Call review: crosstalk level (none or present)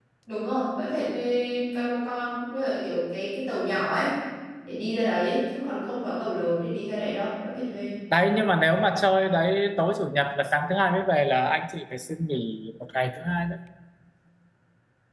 none